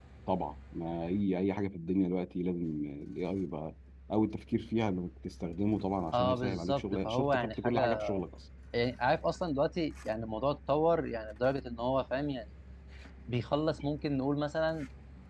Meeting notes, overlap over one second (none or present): present